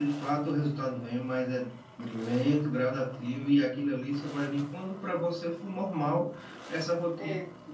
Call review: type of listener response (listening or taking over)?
listening